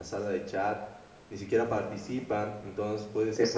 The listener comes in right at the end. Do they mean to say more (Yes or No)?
No